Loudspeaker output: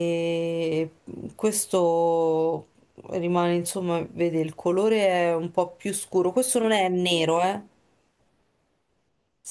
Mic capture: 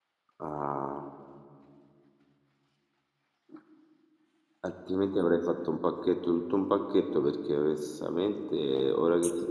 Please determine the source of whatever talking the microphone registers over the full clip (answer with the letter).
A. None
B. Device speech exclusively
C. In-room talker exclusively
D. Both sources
C